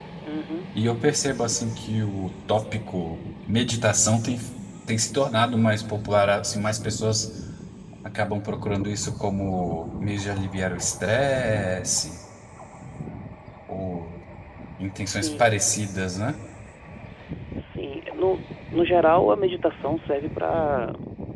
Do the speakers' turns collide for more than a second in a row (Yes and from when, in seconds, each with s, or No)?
No